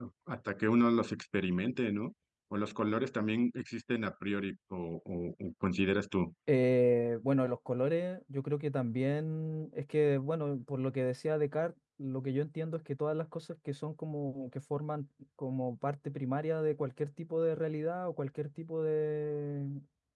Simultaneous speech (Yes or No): No